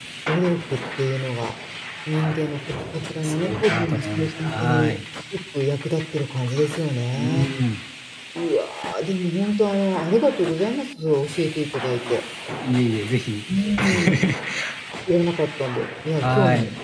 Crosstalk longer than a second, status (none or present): present